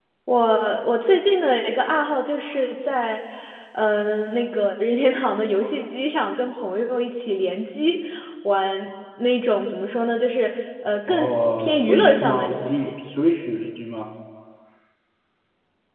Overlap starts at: 11 s

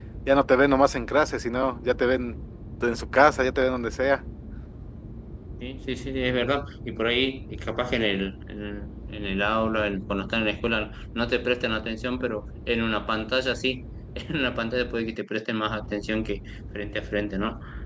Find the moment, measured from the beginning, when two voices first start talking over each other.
none

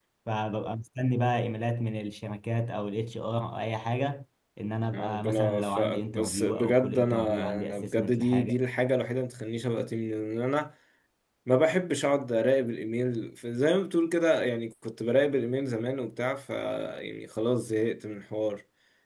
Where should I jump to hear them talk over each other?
5 s

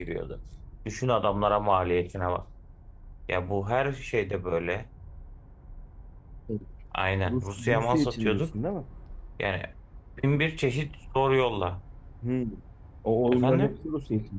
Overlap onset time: 7 s

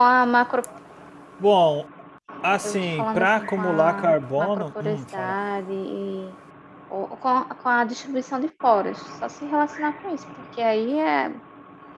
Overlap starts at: 3 s

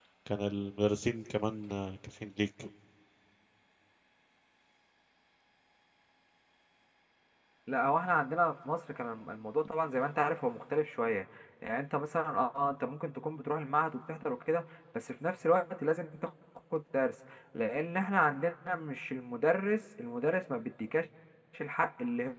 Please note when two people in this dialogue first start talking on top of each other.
none

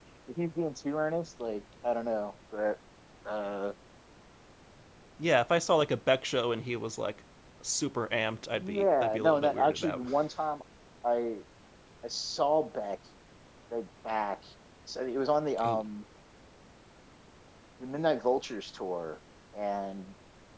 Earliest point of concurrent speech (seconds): 9 s

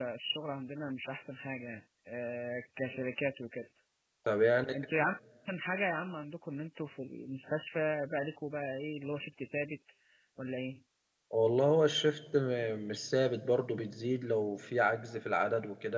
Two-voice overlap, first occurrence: none

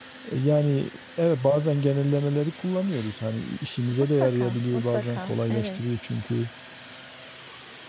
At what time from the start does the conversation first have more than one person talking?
4 s

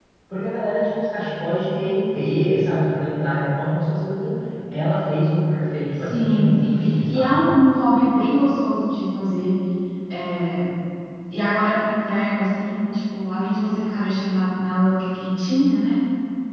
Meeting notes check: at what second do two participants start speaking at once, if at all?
6 s

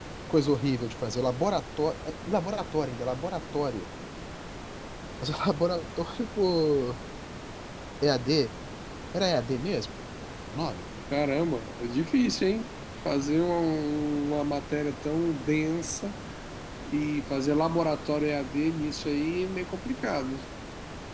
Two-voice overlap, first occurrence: none

